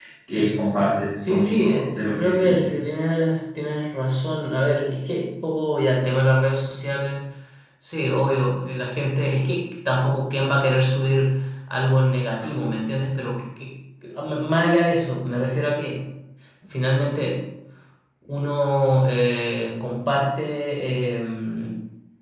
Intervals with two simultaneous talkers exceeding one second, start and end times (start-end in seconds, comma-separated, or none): 1.1-2.8